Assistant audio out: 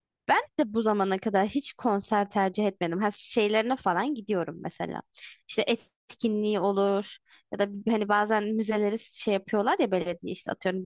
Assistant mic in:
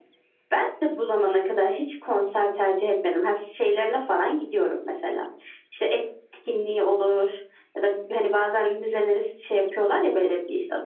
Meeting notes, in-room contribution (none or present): none